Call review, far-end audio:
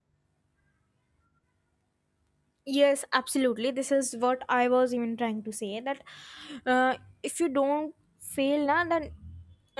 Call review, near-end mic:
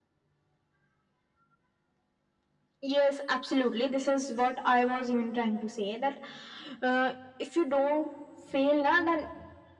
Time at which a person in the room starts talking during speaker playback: none

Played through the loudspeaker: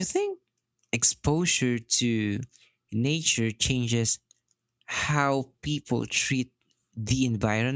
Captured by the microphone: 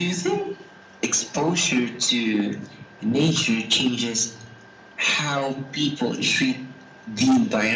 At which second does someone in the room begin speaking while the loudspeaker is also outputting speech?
none

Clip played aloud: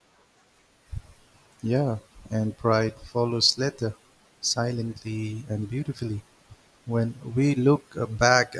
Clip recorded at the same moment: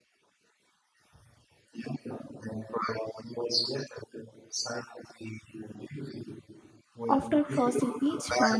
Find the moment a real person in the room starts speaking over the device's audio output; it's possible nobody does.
7.1 s

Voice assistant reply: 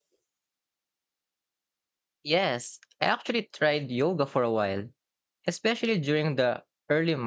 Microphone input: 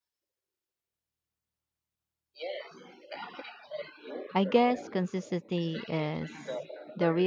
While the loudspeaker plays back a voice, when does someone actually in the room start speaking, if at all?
4.3 s

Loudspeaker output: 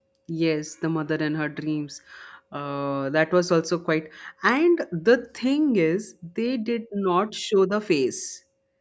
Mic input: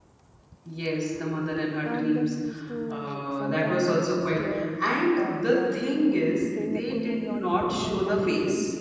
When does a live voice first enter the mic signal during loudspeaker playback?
1.8 s

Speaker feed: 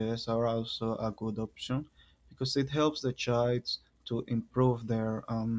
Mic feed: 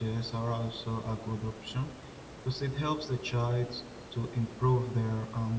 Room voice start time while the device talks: none

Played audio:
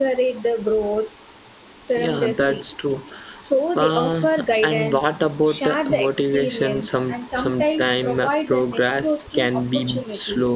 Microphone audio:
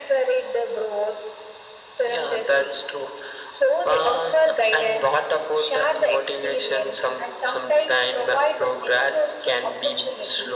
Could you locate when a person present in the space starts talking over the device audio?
none

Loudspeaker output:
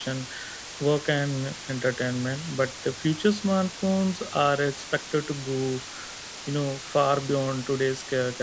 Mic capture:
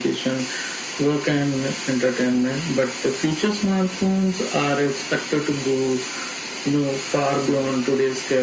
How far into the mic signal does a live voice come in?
none

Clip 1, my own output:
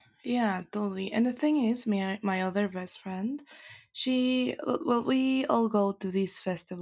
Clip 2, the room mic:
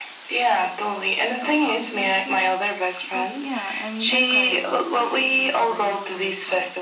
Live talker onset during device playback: 1.4 s

